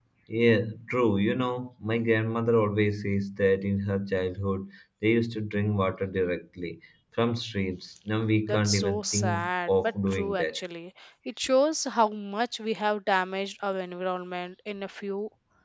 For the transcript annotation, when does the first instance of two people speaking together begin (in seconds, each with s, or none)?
8.4 s